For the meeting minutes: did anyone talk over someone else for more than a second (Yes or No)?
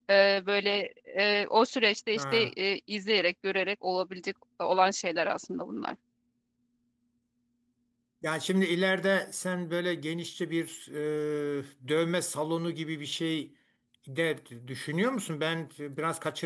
No